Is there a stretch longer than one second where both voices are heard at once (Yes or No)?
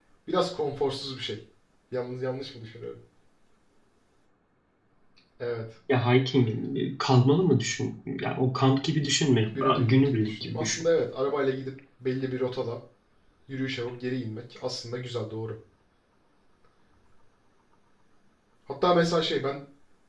Yes